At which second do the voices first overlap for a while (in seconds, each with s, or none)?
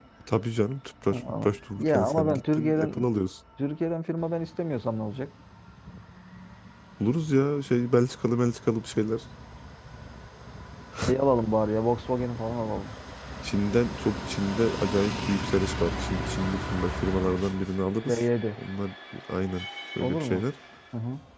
1.1 s